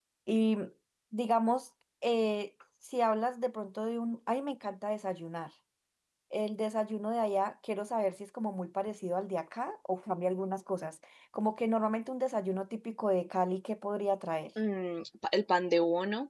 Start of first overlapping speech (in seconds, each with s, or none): none